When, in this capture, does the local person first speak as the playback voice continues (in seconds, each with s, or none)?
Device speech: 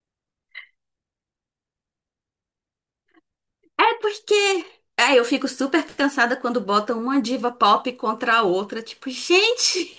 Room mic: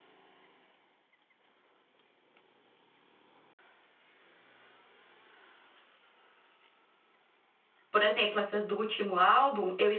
7.9 s